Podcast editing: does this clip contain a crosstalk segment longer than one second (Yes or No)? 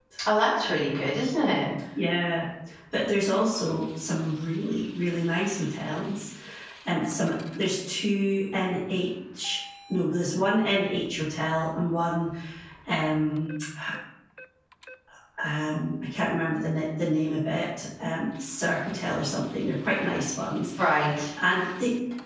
No